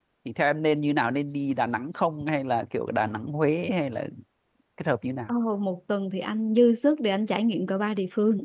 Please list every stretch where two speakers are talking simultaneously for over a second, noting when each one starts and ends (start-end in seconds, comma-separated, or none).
none